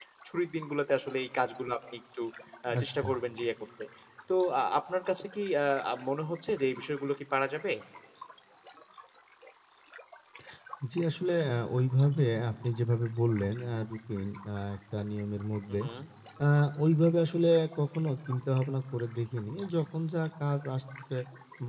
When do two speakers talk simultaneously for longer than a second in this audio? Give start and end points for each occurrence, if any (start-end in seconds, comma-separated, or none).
none